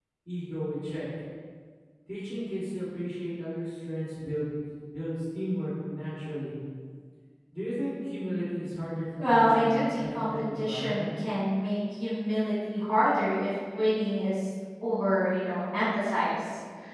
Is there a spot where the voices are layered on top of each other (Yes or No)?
Yes